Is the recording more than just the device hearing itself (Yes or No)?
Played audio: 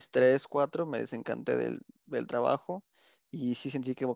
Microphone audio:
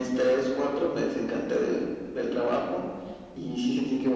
No